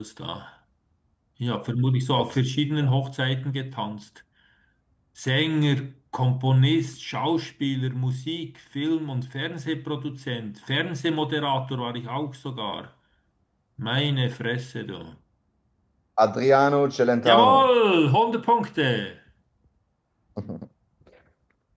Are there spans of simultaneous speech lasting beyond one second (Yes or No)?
No